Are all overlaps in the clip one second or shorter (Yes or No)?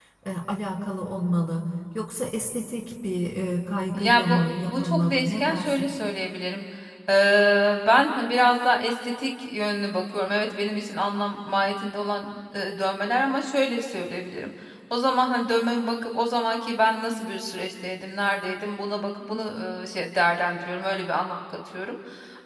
No